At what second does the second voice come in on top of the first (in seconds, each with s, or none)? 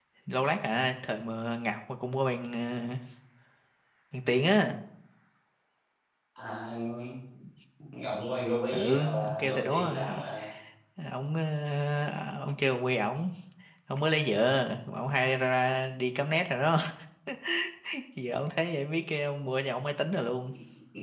8.7 s